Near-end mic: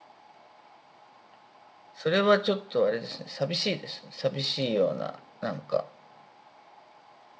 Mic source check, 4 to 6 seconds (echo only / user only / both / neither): user only